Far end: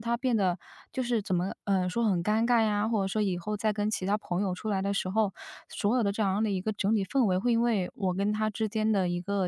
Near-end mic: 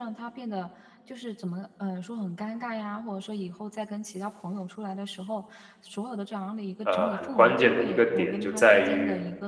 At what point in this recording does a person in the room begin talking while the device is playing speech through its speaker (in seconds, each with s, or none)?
6.8 s